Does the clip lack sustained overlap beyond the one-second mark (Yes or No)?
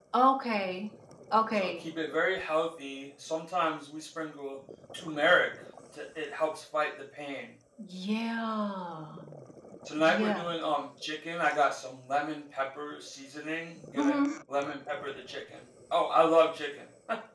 Yes